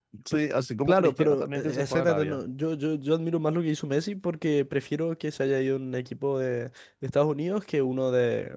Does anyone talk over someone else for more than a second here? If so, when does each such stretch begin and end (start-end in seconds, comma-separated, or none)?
0.8-2.4